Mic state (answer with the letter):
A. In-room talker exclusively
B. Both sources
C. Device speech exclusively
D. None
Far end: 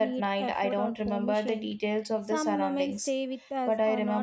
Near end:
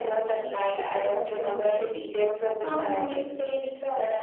C